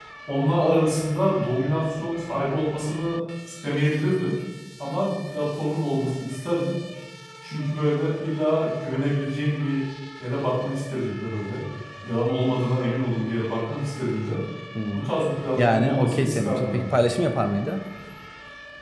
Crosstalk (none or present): present